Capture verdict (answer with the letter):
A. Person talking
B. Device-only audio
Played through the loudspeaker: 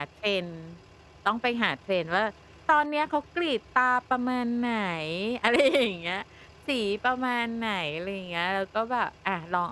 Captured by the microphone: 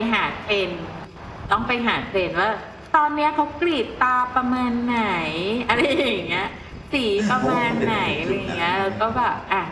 A